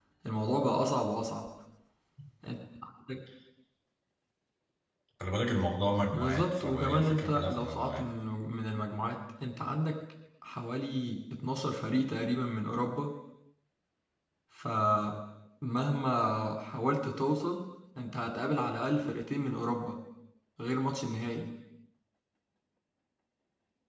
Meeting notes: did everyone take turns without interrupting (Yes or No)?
No